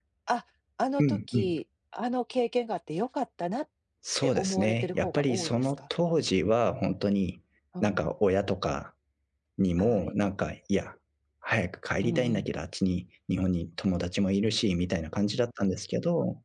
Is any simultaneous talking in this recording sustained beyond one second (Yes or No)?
Yes